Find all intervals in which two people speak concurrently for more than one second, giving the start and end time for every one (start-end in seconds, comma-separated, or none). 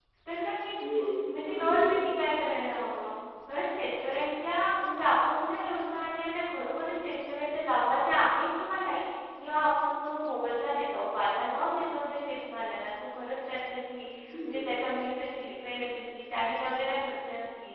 0.9-2.2